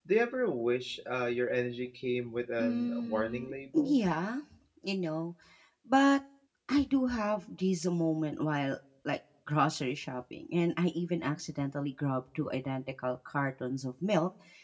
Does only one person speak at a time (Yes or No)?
No